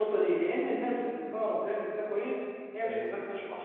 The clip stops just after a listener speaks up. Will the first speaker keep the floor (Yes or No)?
Yes